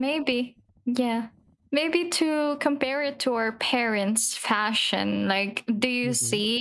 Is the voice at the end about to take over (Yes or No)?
No